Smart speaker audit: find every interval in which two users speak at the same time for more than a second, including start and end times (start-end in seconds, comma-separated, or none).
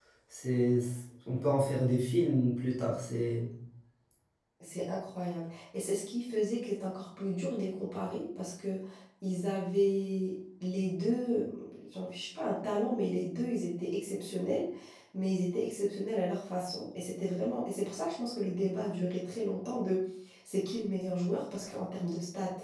none